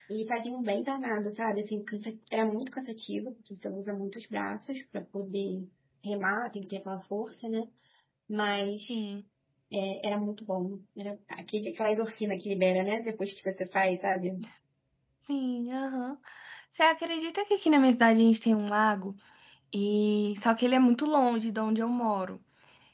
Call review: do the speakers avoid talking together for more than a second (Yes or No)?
Yes